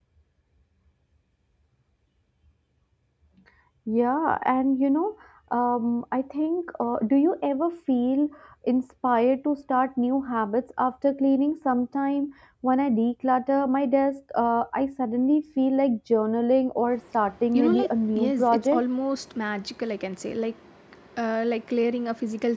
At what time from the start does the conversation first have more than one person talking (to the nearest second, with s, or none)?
18 s